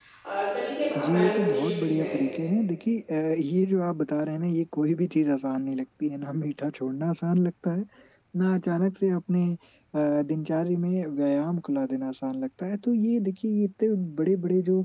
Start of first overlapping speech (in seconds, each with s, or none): 1.0 s